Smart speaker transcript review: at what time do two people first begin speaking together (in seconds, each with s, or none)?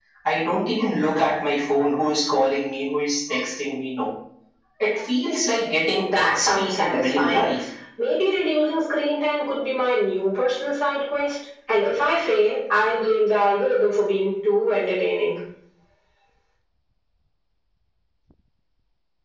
5.9 s